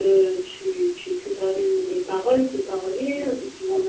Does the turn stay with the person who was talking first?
No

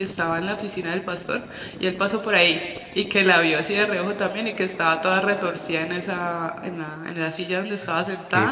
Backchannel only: Yes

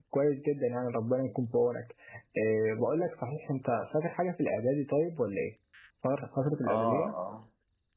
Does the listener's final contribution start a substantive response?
Yes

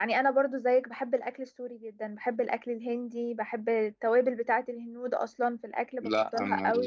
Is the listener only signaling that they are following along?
No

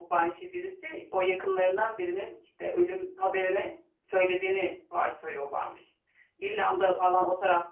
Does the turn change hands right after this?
No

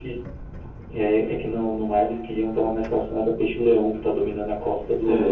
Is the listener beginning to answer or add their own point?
Yes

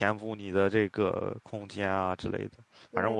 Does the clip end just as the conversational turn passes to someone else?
No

